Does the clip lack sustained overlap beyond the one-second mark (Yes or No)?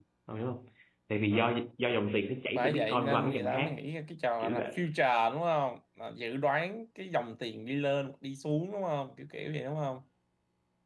No